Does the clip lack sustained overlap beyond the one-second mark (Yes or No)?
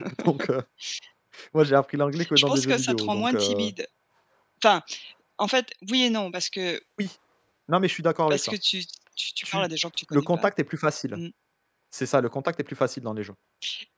No